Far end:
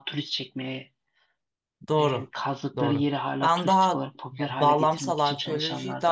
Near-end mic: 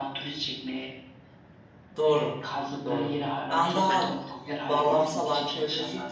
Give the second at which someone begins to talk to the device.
4 s

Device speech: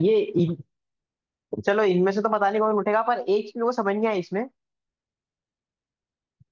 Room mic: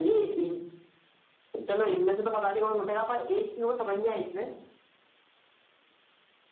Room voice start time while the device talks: none

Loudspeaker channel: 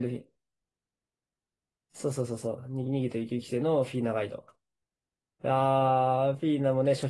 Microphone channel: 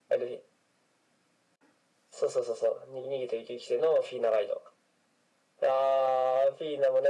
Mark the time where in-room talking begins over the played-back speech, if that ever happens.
none

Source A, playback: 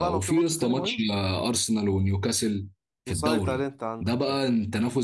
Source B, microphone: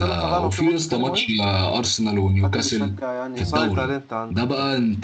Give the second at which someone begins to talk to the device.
2 s

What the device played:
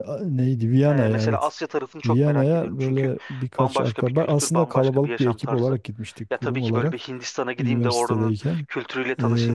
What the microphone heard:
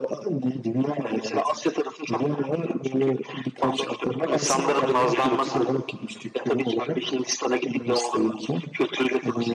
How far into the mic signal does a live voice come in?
4 s

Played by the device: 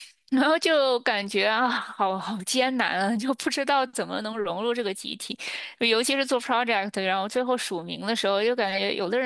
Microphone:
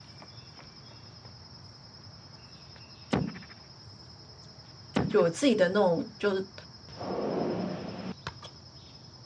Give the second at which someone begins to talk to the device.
5 s

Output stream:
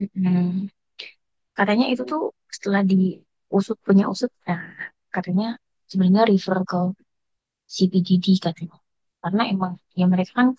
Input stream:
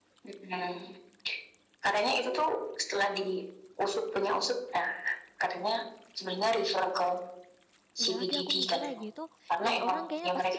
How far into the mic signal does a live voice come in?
8 s

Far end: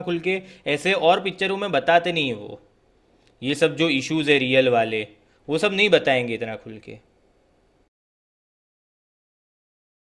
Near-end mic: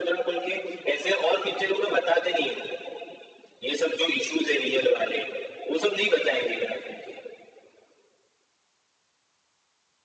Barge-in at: none

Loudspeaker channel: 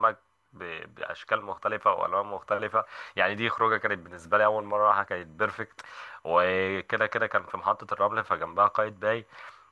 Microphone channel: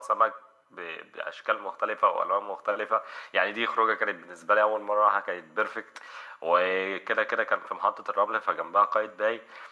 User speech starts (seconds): none

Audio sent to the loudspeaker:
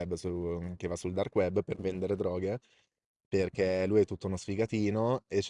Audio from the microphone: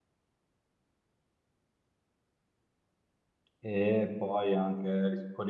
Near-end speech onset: 4 s

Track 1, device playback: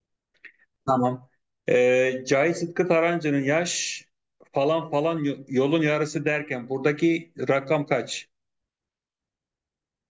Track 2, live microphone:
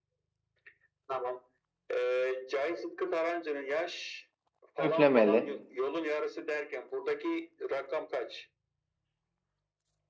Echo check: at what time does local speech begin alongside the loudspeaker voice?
5 s

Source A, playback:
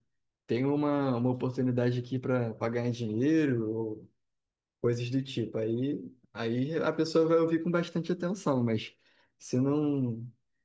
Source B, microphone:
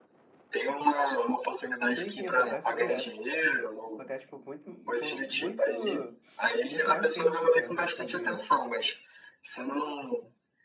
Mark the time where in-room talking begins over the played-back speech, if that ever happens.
2 s

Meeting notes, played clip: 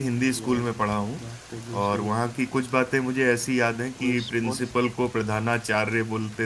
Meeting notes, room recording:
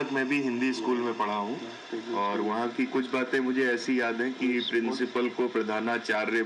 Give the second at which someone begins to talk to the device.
none

